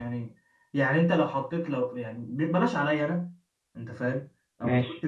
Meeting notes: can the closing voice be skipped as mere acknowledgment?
Yes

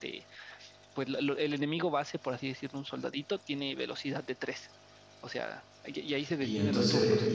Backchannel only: No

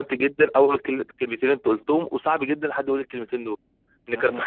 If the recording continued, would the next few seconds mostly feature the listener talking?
No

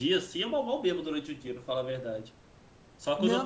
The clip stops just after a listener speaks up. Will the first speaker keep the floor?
No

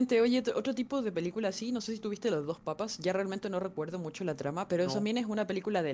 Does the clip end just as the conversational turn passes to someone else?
No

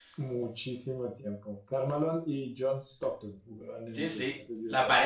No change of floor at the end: No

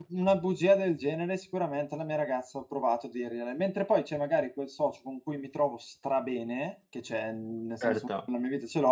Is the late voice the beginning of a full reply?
No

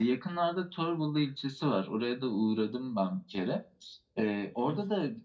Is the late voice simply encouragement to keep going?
Yes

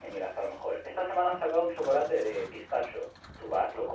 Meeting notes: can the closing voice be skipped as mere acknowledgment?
Yes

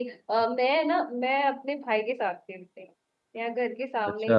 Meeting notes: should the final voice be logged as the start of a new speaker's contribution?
No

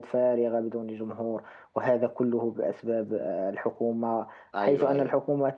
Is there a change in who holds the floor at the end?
No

